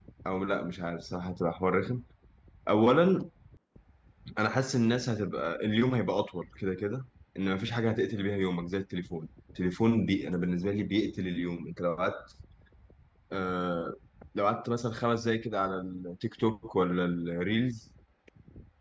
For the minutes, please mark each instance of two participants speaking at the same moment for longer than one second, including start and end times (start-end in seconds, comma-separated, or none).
none